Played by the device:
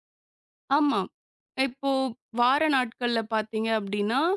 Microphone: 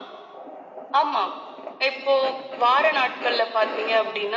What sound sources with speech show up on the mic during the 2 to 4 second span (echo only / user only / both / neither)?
echo only